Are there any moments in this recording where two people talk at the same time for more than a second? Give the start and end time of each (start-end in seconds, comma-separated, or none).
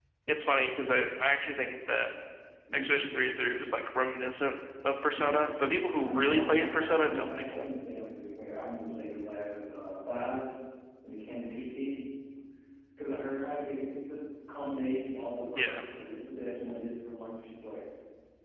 6.0-7.7